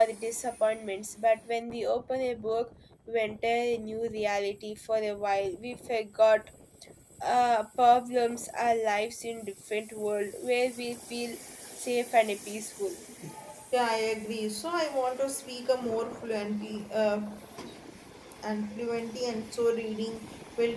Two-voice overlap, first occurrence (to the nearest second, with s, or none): none